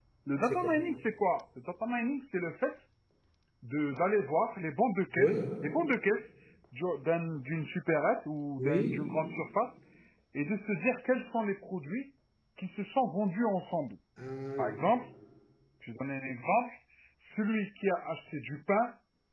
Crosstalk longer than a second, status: none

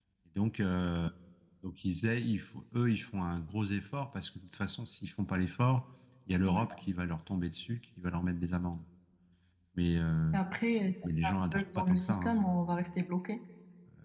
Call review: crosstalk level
present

